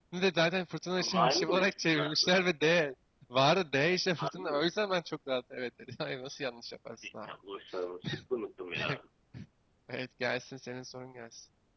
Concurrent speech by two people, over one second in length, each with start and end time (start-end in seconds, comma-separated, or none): 1.0-2.5